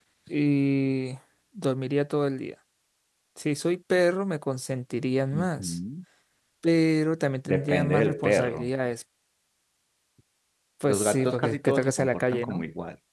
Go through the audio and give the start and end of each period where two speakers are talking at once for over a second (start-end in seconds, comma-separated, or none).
7.5-8.7, 10.9-12.6